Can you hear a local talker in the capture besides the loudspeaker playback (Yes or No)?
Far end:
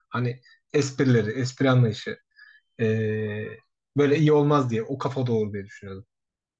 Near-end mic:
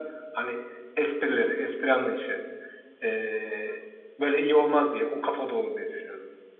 No